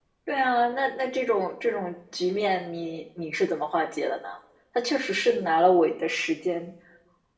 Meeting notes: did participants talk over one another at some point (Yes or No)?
No